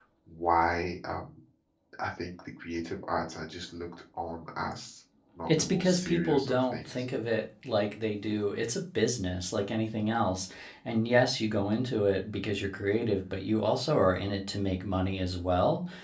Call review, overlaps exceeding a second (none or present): present